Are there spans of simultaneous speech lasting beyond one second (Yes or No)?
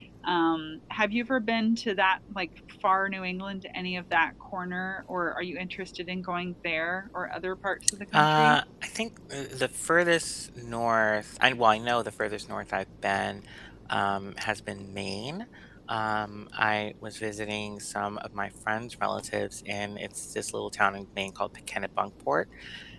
No